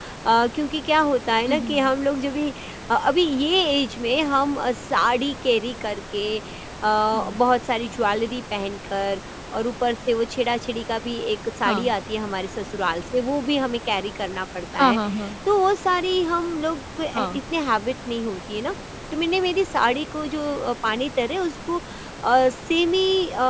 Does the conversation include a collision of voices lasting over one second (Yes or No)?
No